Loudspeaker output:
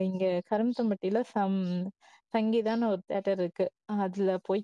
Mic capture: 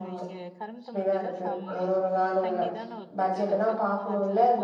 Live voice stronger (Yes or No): Yes